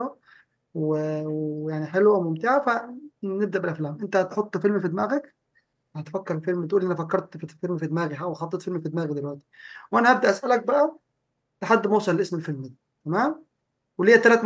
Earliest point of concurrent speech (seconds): none

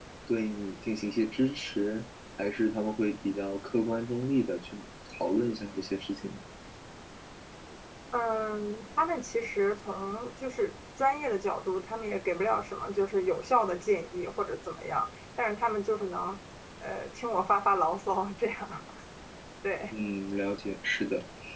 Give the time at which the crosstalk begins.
none

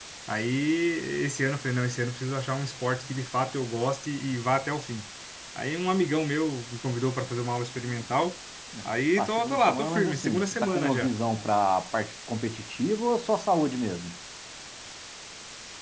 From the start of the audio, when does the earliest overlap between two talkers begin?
9.2 s

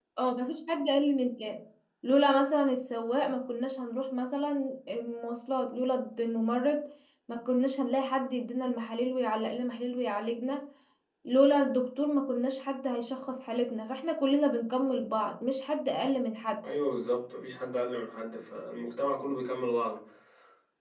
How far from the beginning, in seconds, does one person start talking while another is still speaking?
none

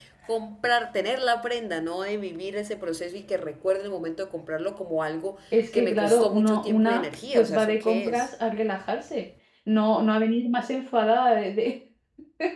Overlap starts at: 5.5 s

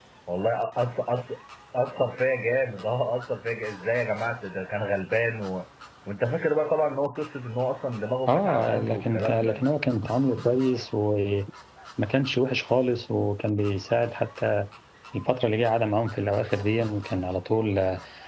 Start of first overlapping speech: 8.3 s

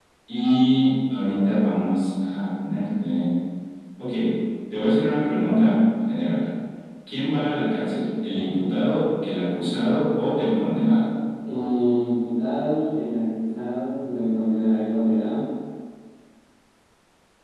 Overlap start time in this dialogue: none

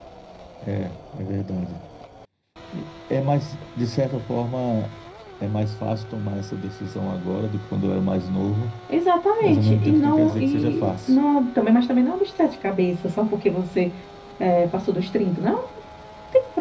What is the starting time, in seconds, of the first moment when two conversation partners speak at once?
9.4 s

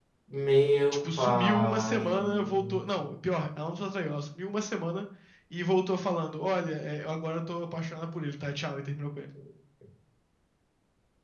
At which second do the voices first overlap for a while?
1.2 s

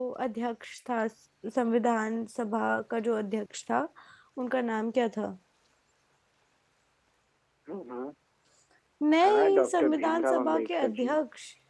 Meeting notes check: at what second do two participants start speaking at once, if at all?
9.2 s

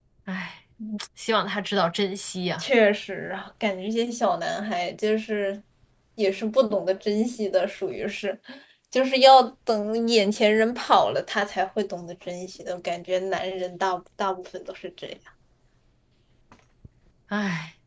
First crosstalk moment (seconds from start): none

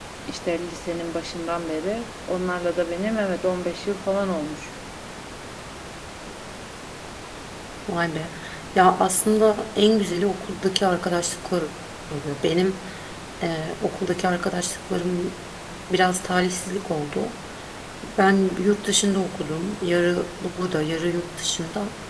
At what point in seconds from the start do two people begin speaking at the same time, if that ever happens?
none

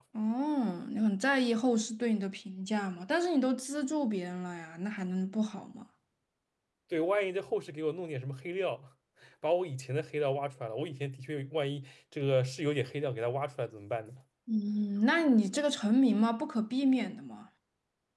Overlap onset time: none

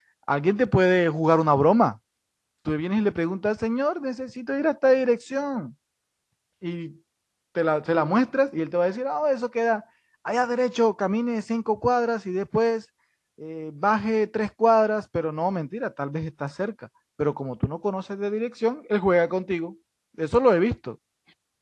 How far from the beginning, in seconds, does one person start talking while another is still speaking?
none

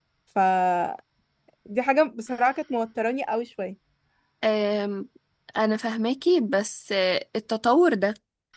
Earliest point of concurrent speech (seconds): none

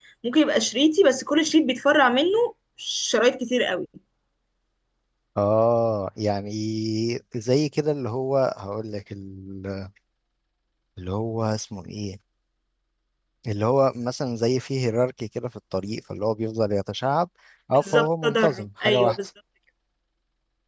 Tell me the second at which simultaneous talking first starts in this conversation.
17.7 s

